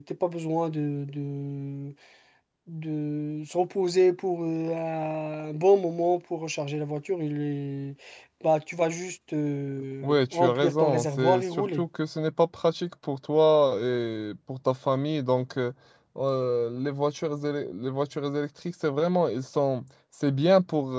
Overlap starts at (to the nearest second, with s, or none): 10 s